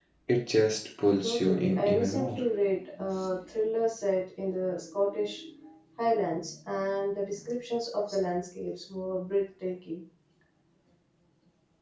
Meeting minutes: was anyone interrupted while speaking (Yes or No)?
Yes